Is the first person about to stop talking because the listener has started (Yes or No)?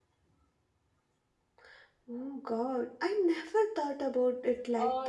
Yes